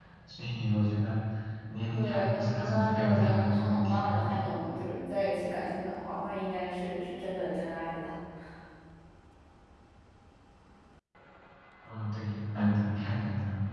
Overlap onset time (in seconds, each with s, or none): 1.9 s